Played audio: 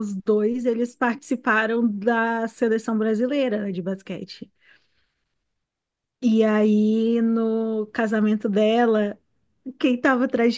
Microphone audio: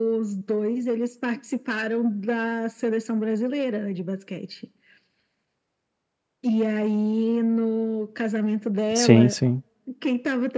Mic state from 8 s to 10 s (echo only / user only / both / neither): both